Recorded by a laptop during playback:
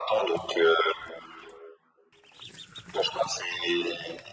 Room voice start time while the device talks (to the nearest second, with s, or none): none